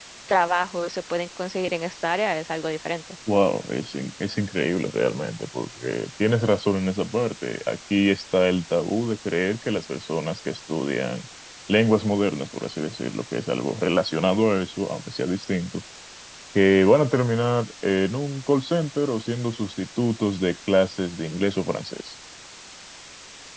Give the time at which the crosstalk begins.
none

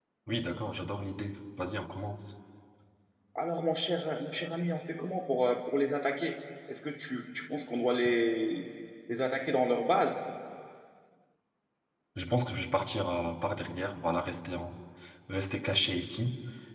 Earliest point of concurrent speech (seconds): none

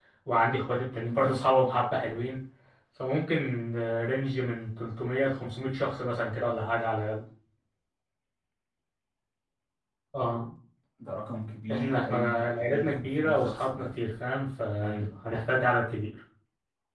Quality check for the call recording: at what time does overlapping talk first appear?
11.7 s

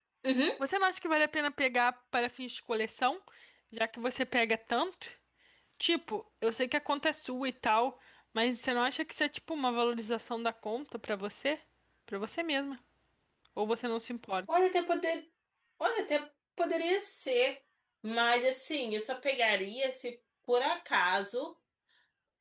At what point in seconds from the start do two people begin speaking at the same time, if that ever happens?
none

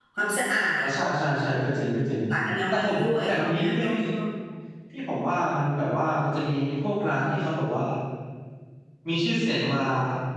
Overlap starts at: 2.7 s

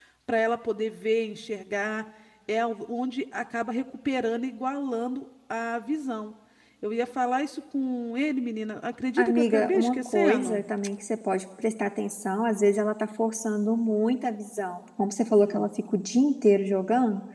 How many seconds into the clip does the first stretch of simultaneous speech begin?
9.2 s

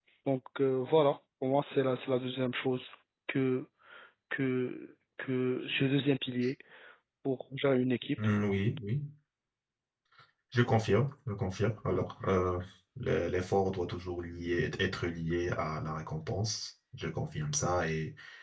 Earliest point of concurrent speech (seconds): none

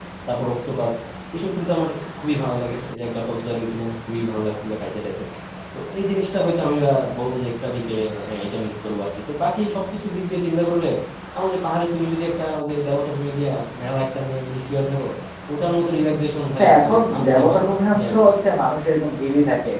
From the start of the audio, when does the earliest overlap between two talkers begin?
16.6 s

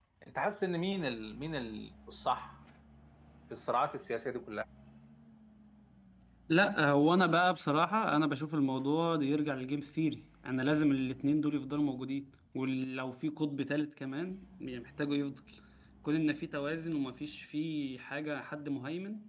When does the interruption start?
none

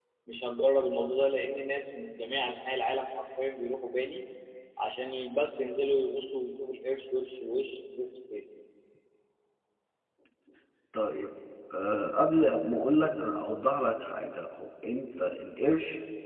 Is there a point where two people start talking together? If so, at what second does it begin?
none

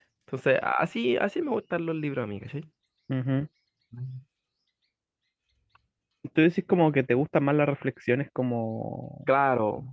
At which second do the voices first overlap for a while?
none

